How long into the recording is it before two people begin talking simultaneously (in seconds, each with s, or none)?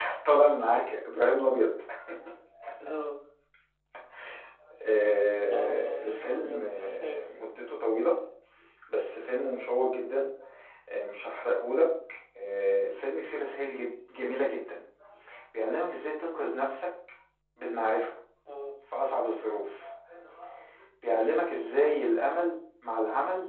5.5 s